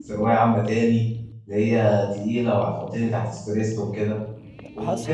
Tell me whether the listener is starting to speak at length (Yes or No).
No